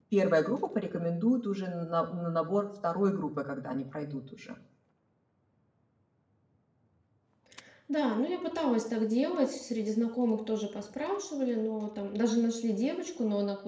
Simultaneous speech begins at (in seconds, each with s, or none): none